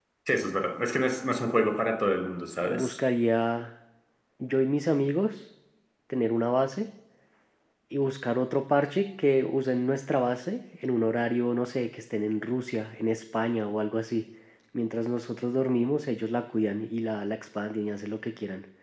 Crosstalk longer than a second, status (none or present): none